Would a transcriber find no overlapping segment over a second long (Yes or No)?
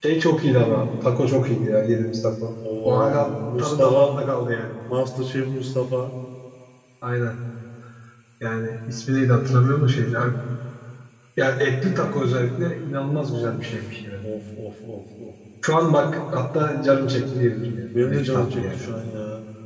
No